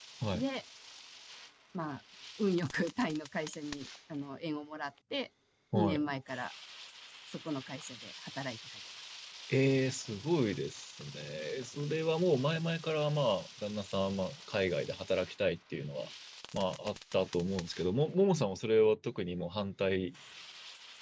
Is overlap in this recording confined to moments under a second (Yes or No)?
Yes